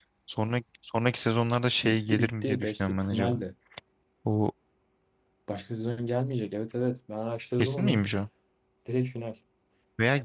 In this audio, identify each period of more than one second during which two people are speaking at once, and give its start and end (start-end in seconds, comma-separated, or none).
1.8-3.4